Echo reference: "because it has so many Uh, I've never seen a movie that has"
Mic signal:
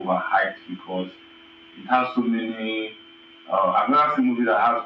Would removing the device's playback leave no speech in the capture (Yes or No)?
Yes